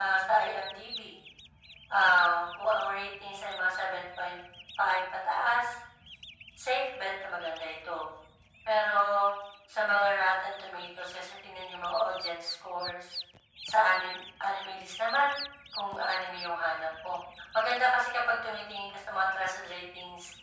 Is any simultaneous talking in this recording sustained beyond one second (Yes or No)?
No